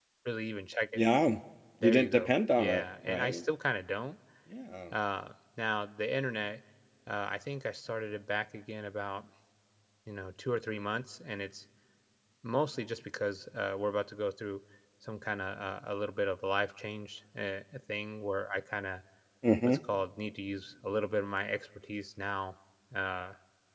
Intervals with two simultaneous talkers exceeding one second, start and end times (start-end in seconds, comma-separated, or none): 1.8-3.5